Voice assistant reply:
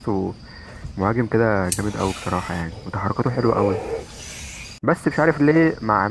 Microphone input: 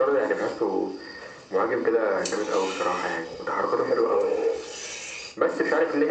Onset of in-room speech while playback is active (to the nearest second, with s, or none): none